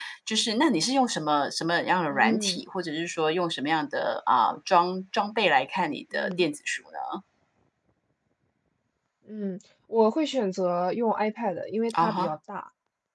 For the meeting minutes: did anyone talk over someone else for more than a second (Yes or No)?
No